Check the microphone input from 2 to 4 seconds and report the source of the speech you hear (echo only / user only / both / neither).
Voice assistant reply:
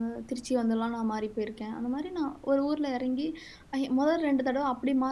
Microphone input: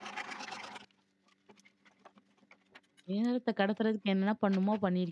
user only